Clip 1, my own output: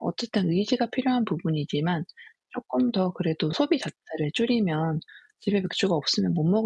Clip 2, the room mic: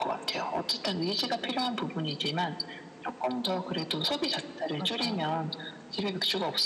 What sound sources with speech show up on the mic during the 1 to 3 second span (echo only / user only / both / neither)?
echo only